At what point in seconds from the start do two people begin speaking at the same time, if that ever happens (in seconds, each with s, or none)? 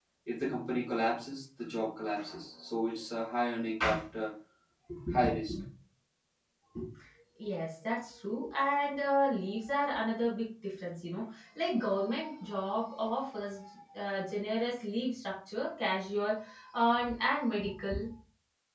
none